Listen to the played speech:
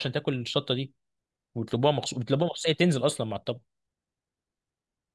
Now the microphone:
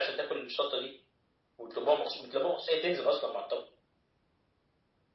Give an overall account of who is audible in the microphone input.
echo only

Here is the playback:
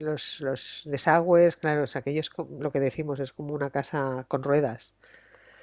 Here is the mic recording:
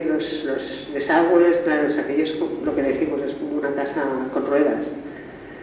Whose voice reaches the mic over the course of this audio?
echo only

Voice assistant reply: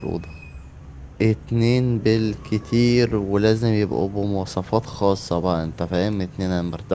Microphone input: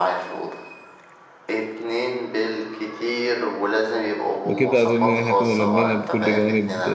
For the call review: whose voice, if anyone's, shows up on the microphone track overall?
both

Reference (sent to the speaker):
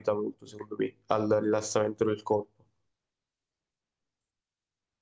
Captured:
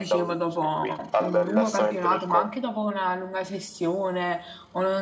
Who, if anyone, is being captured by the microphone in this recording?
both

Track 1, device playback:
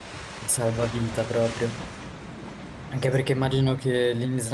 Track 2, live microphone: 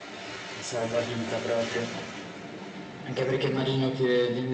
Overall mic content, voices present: echo only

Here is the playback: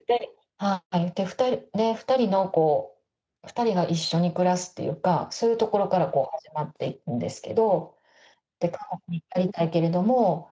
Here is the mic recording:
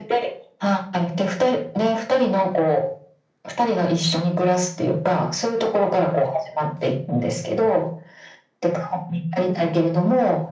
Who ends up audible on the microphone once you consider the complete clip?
echo only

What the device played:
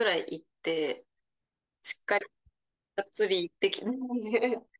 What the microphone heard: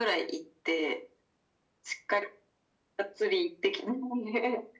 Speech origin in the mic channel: echo only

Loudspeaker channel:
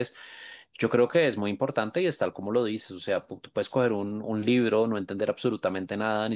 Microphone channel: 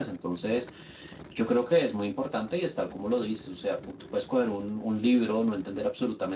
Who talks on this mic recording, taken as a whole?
echo only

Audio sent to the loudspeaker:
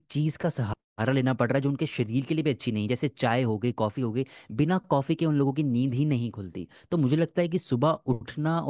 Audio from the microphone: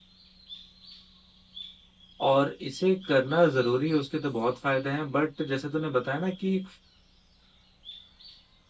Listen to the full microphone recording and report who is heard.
user only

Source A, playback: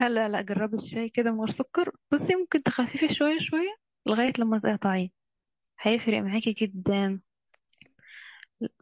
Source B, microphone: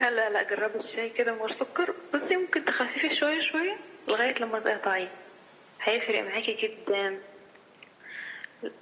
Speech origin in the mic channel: echo only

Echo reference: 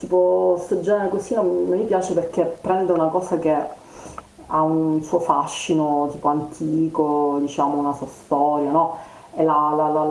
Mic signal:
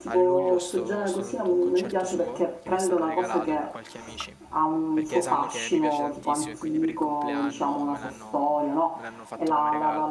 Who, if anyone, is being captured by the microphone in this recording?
both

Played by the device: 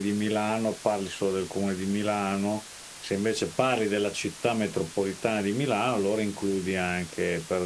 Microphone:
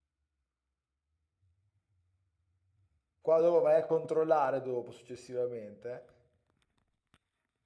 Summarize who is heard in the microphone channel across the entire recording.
user only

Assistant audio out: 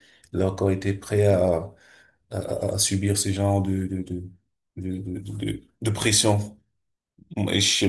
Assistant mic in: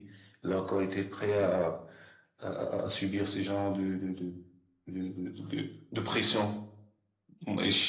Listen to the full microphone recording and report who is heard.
echo only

